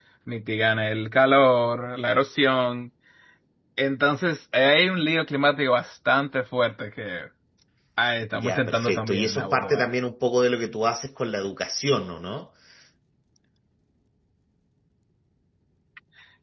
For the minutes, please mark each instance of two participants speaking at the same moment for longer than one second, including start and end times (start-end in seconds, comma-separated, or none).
8.3-9.9